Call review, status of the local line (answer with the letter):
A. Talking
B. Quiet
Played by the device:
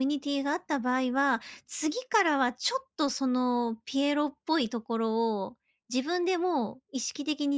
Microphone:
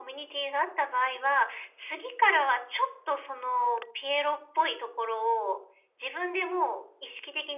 B